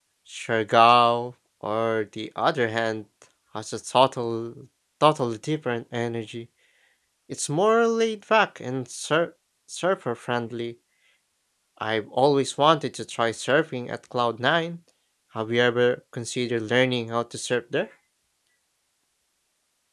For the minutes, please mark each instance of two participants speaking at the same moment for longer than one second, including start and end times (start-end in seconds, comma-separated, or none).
none